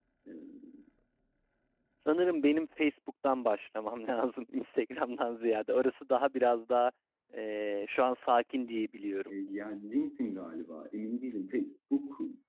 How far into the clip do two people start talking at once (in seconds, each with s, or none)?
none